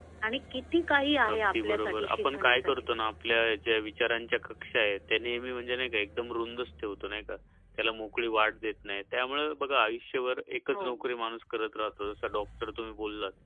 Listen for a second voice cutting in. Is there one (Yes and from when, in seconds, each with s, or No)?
Yes, from 1.3 s